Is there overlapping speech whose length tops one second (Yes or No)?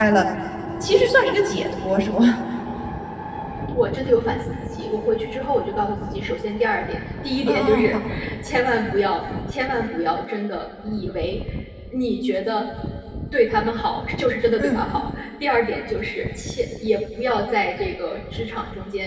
No